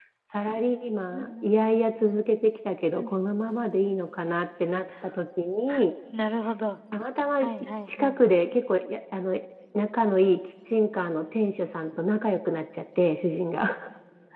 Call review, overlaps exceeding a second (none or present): none